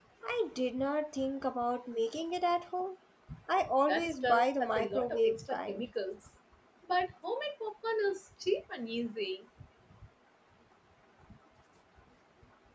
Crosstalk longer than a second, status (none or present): present